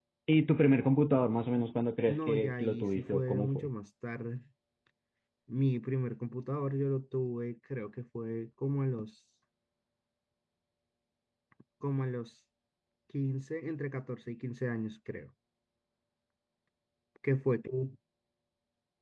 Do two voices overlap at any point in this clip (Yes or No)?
Yes